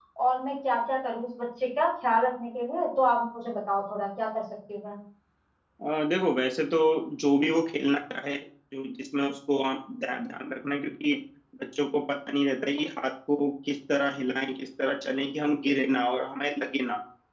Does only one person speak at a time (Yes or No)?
Yes